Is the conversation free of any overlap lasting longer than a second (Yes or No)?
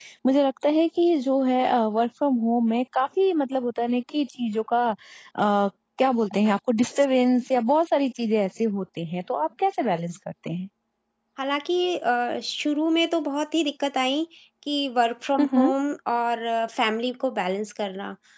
Yes